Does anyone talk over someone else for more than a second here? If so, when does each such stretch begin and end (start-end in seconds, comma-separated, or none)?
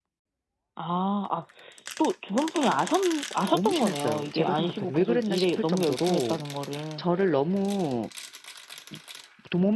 3.5-6.4